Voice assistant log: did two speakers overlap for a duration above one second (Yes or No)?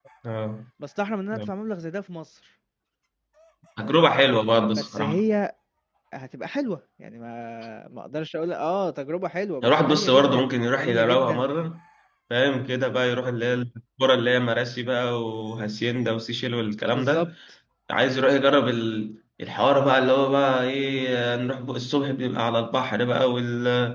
Yes